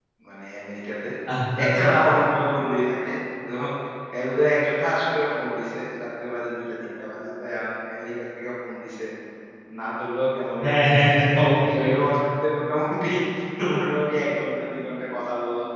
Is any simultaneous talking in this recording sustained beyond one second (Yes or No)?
No